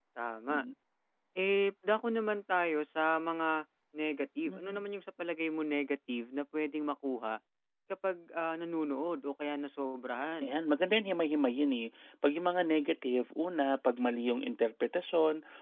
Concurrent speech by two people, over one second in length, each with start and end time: none

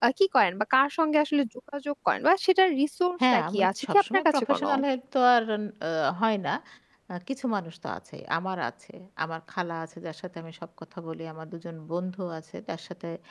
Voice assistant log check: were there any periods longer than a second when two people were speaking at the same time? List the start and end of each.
3.3-4.7

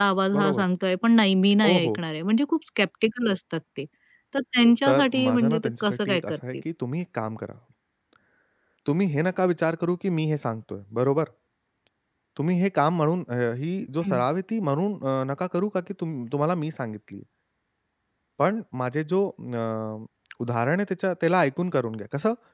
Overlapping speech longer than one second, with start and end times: 4.8-6.6

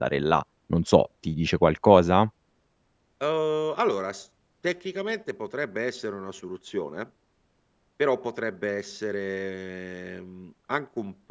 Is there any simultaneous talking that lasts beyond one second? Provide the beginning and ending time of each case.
none

